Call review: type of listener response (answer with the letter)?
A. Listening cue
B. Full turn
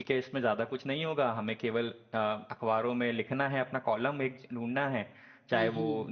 A